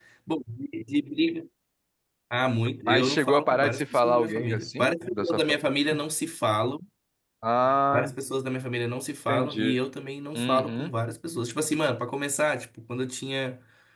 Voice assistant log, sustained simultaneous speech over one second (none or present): present